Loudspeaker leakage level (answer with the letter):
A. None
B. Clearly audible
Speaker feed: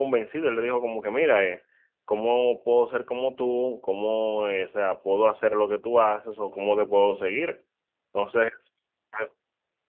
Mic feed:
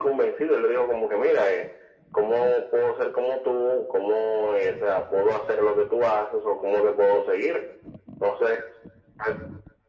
B